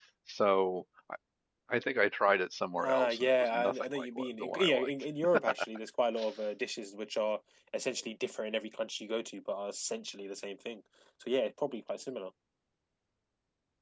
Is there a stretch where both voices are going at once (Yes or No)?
Yes